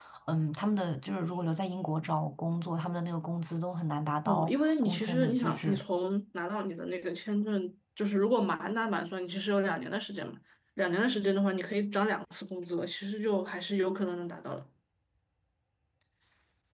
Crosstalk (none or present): present